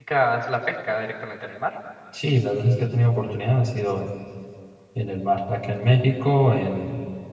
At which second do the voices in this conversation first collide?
none

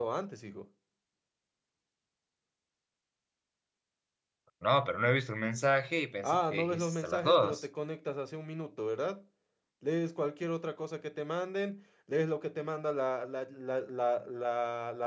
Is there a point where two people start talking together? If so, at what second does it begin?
6 s

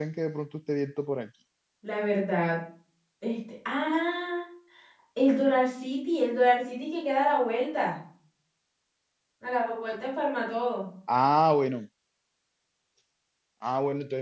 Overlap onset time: none

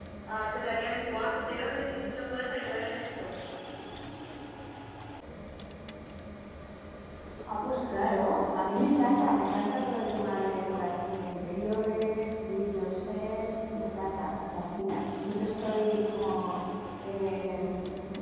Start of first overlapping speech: none

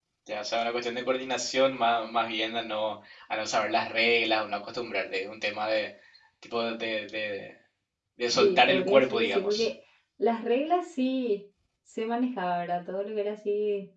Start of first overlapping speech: 8 s

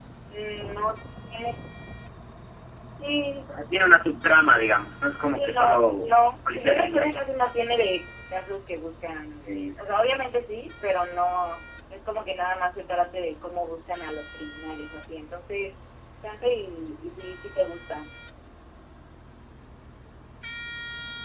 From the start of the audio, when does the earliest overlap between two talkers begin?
5 s

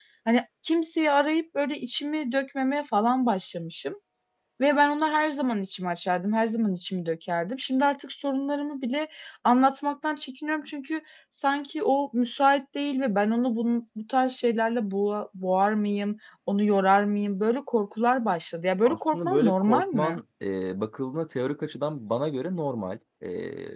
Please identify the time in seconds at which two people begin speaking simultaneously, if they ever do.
19 s

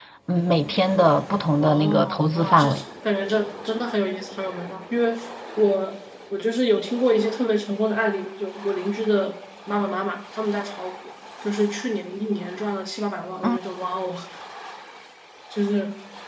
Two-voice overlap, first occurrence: 2 s

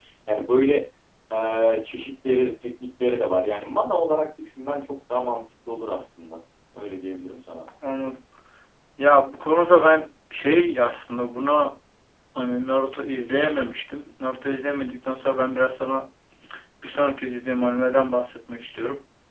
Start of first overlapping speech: none

